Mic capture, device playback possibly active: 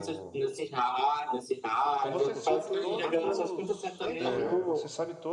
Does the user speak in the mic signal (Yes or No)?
Yes